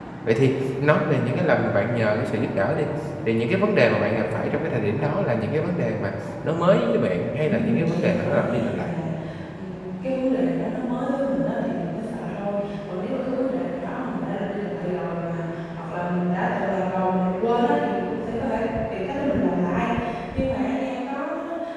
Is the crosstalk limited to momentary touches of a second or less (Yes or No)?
No